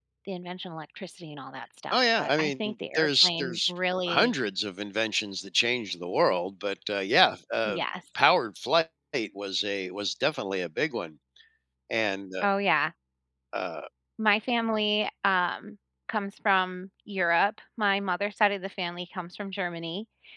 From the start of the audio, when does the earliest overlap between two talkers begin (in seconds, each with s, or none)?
1.9 s